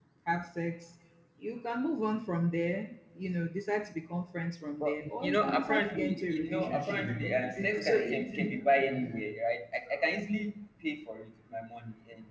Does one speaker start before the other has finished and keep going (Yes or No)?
Yes